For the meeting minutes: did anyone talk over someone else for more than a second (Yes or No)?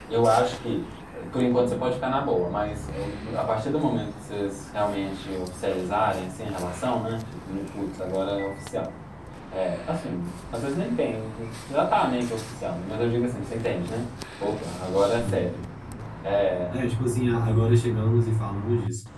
No